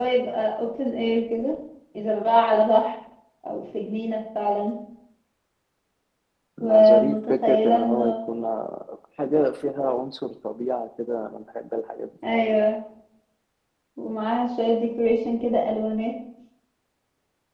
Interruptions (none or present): present